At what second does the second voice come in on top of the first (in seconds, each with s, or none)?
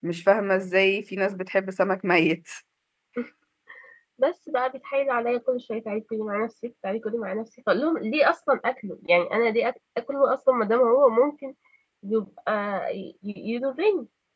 none